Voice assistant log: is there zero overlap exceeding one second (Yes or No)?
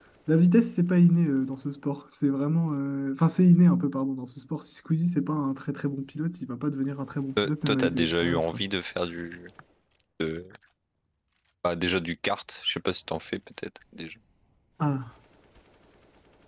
No